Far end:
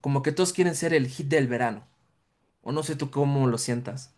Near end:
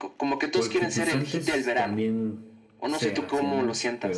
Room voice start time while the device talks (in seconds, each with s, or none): 0.5 s